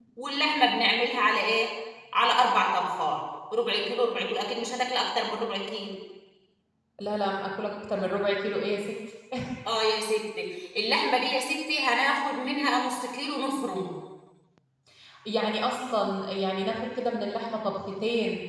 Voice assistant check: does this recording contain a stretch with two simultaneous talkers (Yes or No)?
No